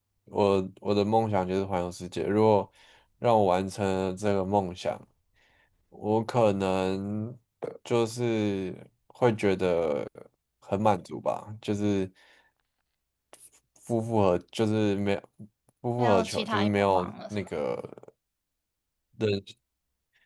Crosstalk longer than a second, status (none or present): present